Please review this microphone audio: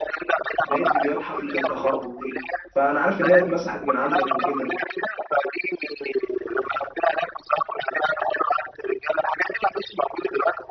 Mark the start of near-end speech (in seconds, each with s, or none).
0.7 s